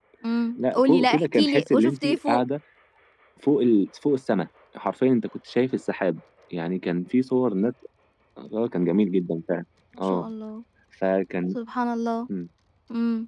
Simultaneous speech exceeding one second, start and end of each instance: 0.6-2.4

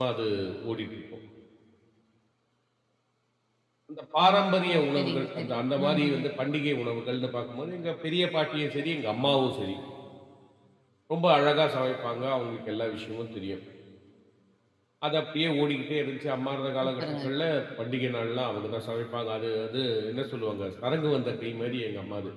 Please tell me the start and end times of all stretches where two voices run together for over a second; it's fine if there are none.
4.2-6.3

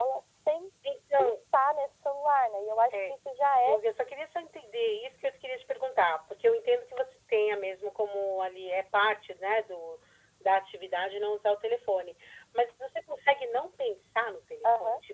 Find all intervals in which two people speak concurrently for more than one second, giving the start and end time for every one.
none

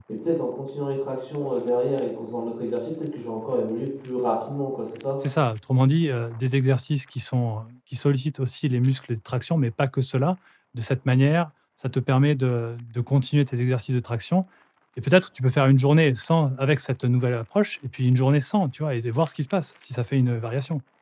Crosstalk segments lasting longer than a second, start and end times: none

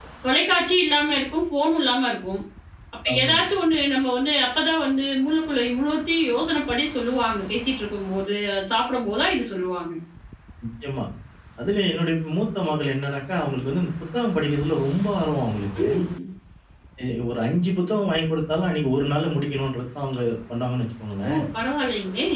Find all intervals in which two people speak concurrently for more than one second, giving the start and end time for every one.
none

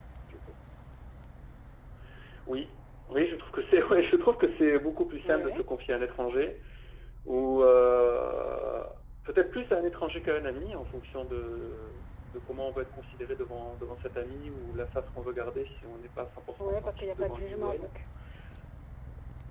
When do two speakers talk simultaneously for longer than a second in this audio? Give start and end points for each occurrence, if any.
16.6-17.9

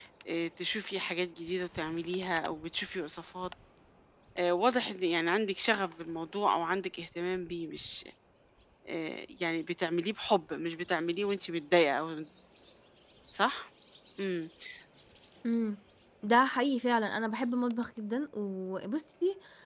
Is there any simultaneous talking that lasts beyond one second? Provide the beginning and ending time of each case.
none

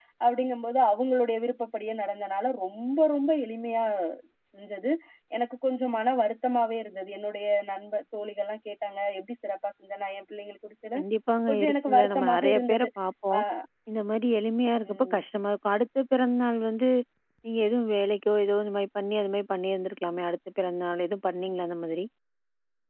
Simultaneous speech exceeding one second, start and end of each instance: 11.5-12.9

